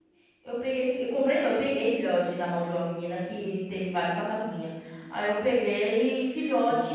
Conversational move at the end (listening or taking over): taking over